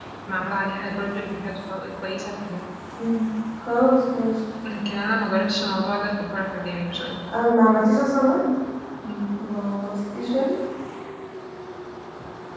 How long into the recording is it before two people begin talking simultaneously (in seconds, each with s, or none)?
none